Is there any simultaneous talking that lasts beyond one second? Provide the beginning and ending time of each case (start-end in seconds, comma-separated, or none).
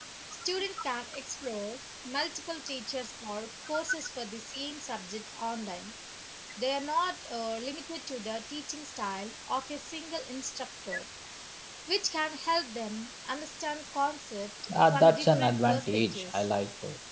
14.9-16.4